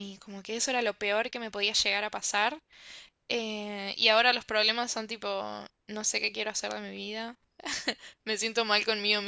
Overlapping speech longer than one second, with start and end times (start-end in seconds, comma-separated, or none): none